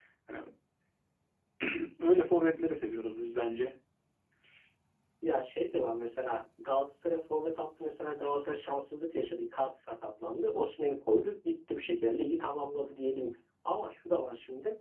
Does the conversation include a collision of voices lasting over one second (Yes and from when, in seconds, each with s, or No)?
No